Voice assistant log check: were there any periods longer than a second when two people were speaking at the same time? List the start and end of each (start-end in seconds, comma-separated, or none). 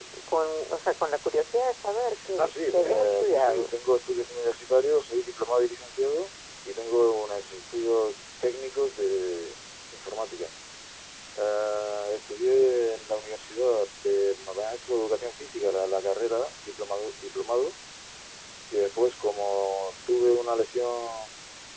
2.4-3.7